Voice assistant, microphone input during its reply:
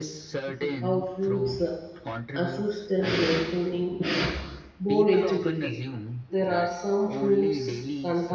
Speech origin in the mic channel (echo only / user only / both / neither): both